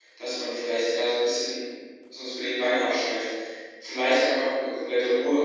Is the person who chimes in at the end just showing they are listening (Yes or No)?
Yes